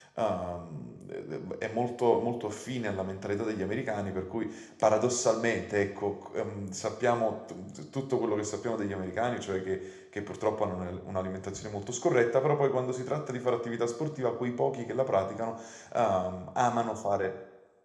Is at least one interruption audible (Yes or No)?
No